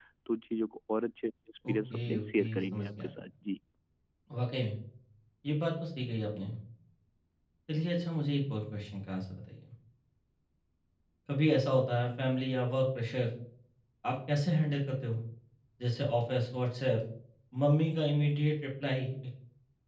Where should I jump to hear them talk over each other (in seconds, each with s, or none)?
1.6 s